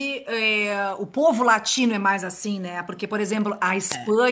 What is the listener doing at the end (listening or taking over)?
listening